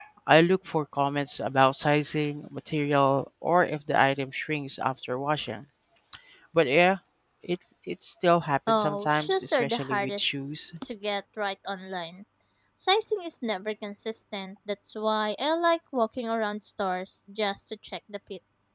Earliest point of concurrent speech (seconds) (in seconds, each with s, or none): 8.7 s